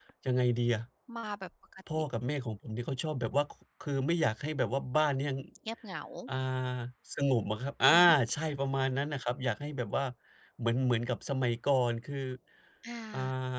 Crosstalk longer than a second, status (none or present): none